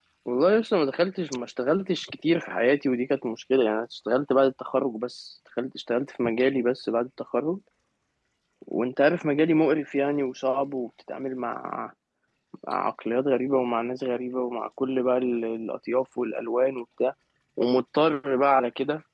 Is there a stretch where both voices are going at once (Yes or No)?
No